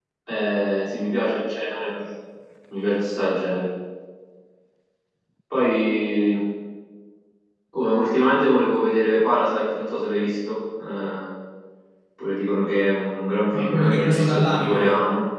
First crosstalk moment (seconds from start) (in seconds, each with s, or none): 13.5 s